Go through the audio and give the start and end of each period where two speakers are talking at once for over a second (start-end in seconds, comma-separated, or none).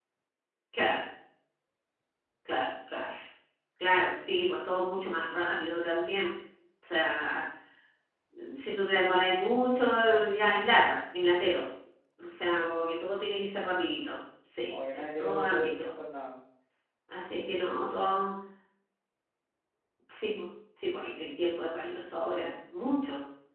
14.7-15.9